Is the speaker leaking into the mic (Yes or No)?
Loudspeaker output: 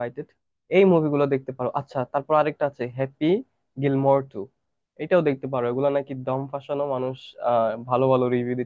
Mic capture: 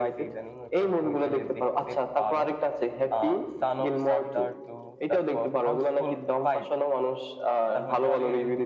Yes